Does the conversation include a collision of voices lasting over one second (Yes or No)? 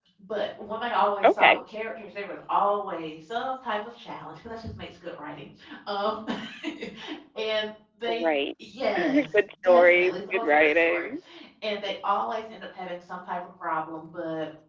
Yes